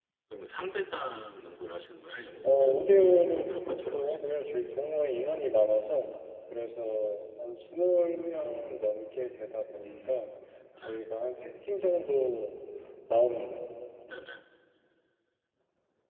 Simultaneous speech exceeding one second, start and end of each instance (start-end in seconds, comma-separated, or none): 2.4-4.5